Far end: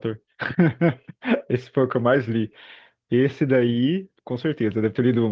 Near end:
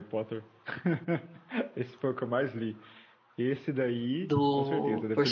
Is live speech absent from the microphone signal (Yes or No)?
No